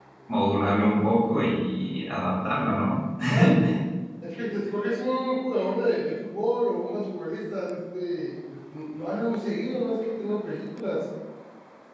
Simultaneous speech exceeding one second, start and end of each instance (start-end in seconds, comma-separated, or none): none